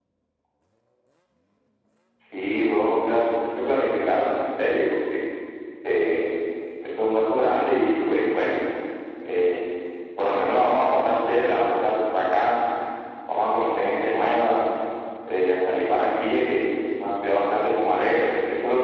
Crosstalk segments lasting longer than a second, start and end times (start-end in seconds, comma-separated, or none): none